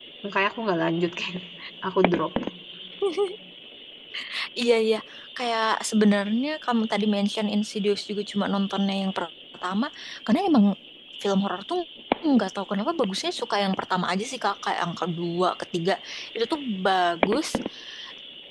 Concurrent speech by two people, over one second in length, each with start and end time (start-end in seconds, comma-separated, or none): none